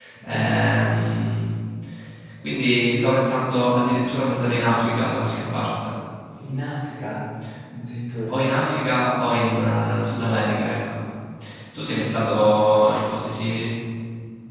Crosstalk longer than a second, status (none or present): none